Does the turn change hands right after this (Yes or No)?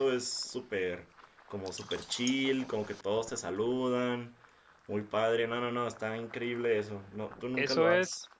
Yes